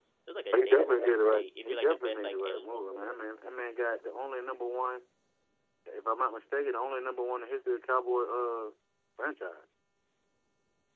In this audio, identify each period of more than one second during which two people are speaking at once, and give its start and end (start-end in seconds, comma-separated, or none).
0.7-3.2